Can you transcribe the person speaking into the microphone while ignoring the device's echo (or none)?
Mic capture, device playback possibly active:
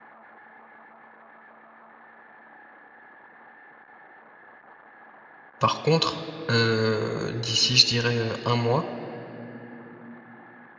Par contre, heu, d'ici je dirais, heu, 1 mois,